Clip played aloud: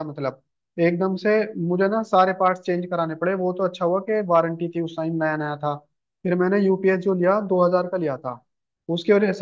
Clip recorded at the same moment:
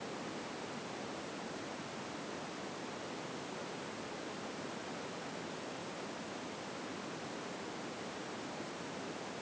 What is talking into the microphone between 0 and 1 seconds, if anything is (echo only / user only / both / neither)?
neither